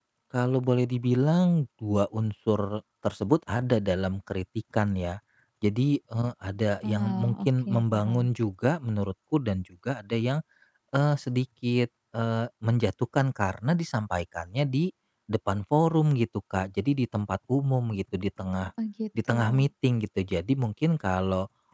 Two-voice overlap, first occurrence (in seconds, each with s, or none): 6.9 s